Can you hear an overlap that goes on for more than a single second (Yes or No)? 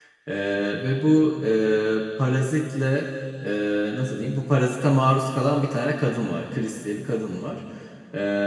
No